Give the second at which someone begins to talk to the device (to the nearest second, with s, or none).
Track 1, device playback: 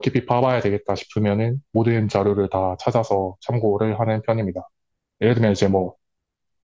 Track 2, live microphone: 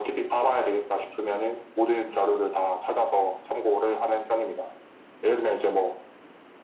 none